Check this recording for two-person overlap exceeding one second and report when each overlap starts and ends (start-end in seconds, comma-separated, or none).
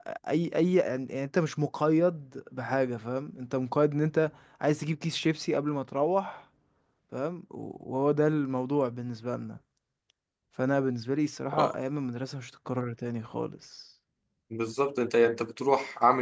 none